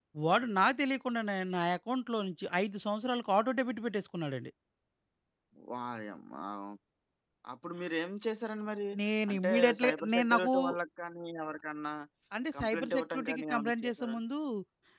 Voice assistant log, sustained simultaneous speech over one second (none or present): present